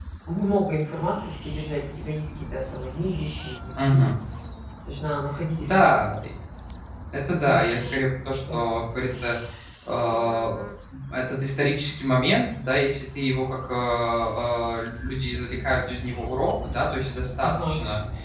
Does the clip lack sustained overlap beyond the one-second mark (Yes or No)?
Yes